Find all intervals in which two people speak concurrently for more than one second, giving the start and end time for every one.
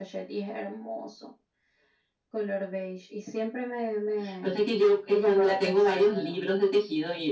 5.1-6.4

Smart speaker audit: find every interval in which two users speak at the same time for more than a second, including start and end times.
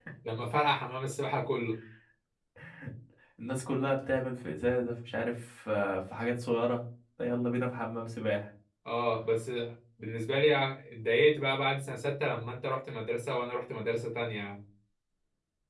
none

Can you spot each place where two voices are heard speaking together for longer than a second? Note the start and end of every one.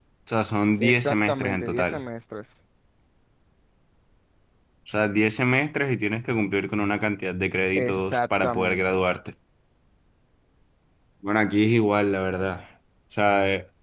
0.7-2.0, 7.8-9.0

